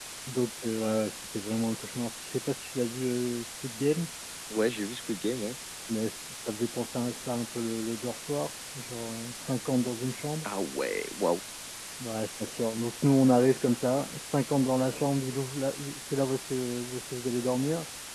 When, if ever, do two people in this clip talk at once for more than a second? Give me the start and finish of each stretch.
none

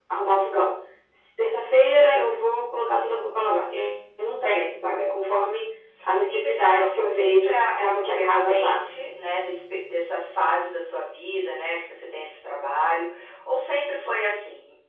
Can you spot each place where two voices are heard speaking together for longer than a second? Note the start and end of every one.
6.3-8.8

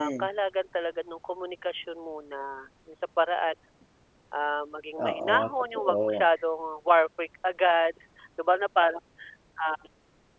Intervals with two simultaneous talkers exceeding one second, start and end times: 5.0-6.2

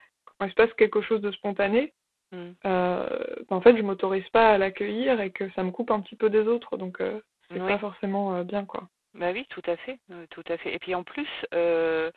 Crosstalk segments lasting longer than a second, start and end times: none

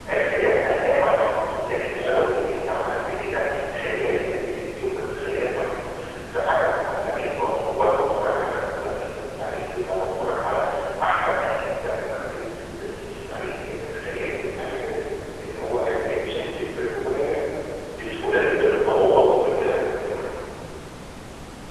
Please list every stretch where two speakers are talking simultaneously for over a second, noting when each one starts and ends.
0.9-2.2

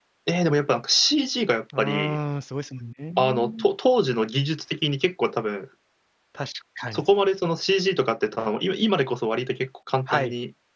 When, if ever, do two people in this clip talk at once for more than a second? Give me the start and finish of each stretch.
none

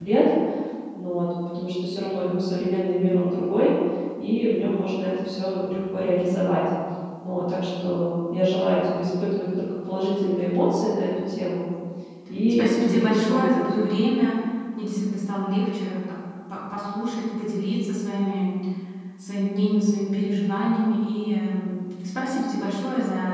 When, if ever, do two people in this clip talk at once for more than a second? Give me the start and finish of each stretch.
12.5-13.7

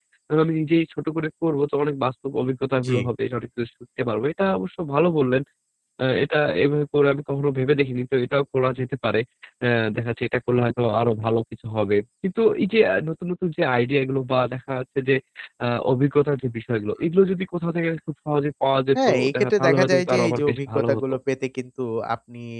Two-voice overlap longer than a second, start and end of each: 19.1-21.0

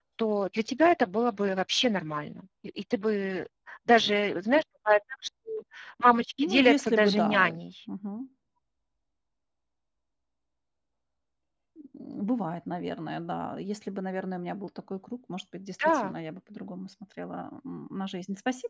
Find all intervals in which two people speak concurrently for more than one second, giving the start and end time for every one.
6.4-7.6

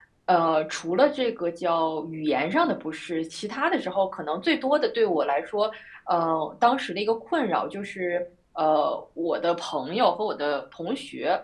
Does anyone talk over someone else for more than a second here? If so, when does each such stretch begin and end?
none

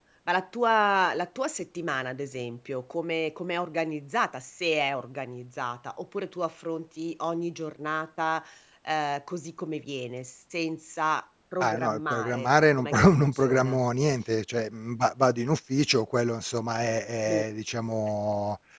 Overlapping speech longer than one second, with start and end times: 11.6-13.8

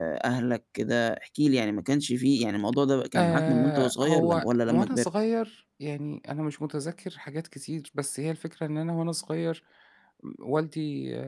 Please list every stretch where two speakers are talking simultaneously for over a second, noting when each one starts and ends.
3.1-5.1

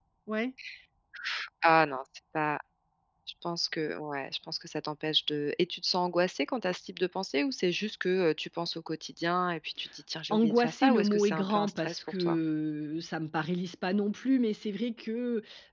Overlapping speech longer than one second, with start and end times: 10.3-12.4

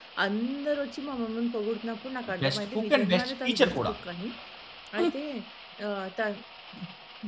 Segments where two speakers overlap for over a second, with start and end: 2.2-3.9

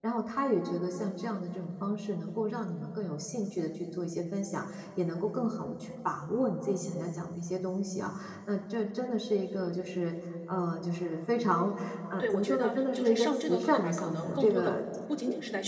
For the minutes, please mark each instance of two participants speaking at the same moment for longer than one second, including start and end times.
12.2-14.7

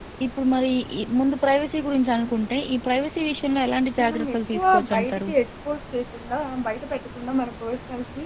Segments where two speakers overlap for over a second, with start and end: 4.0-5.3

